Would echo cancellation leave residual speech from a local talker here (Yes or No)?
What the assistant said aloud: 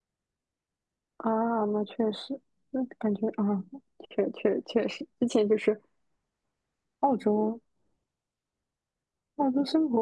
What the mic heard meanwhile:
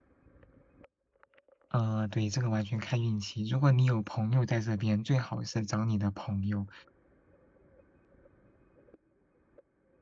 Yes